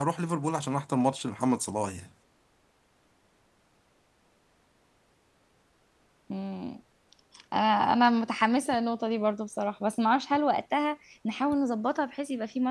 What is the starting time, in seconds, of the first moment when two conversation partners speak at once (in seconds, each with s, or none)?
none